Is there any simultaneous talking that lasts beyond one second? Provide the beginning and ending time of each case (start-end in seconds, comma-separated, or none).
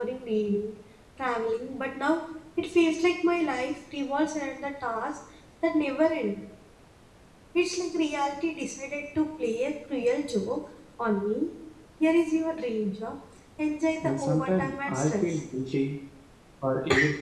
14.0-15.4